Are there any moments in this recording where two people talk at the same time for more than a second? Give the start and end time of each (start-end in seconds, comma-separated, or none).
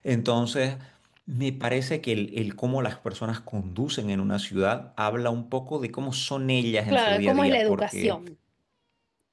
6.9-8.2